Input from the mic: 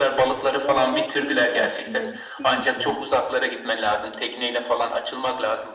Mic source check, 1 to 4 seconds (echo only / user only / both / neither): both